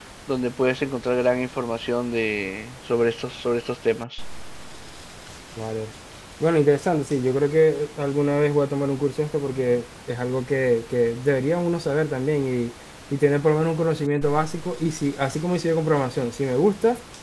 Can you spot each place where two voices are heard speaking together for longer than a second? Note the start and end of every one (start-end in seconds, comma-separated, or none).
none